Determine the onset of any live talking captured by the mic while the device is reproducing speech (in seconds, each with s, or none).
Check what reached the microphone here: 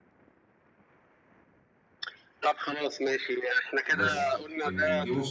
3.9 s